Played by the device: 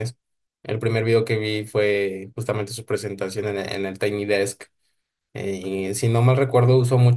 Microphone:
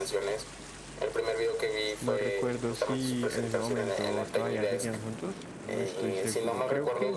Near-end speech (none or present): present